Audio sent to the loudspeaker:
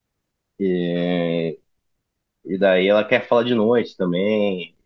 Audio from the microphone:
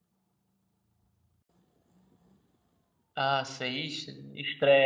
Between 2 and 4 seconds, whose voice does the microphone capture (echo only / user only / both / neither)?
user only